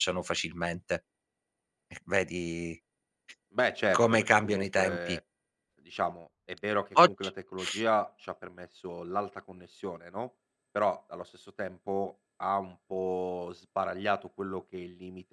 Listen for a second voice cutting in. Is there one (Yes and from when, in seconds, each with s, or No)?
Yes, from 3.9 s